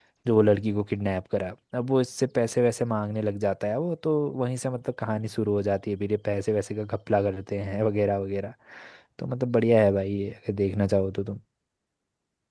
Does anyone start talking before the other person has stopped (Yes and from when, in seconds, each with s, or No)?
No